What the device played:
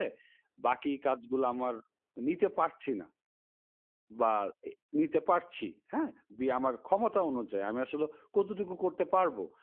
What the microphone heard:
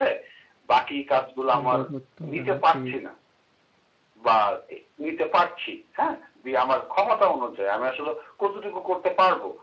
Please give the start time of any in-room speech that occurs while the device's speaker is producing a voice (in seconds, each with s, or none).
1.5 s